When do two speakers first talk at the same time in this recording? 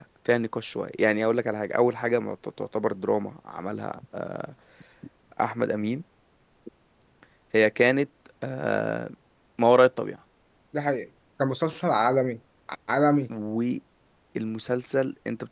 none

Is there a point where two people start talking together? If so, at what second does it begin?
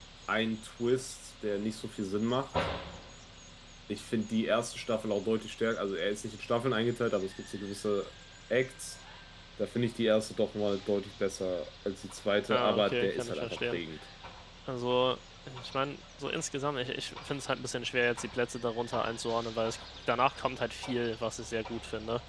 13 s

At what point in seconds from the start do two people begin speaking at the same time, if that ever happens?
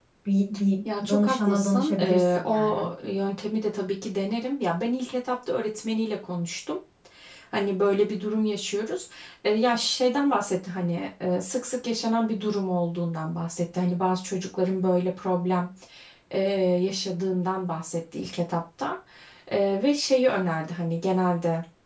1 s

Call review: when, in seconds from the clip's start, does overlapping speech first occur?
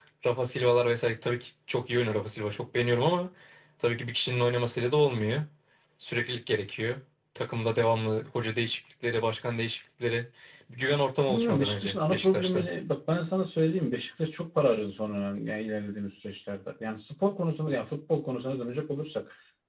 11 s

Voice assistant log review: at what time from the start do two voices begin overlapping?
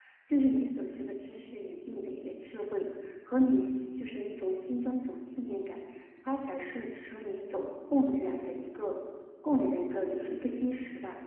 none

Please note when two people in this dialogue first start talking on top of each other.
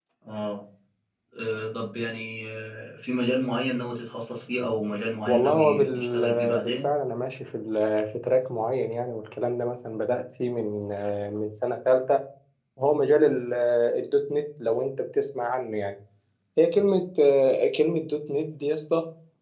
5 s

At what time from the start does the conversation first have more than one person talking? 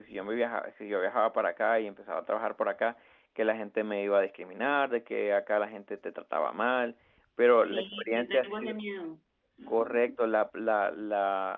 8 s

